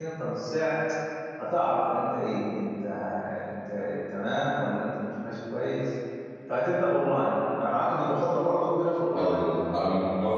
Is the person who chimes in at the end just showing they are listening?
No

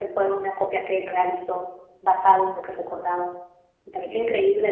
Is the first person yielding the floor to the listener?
Yes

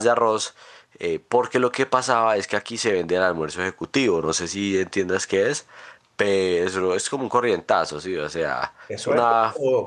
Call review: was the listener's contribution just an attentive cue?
No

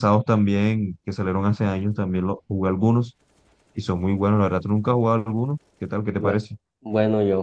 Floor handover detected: Yes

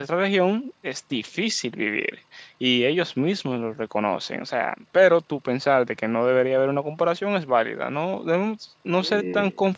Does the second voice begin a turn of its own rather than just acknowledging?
No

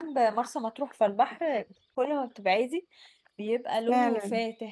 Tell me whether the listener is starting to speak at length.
No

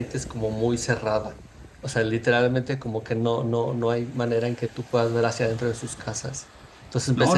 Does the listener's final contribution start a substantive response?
Yes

